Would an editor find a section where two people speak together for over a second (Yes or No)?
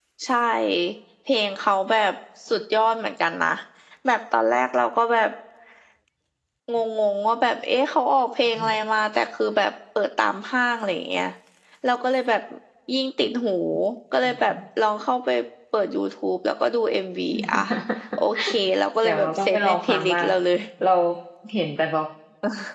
Yes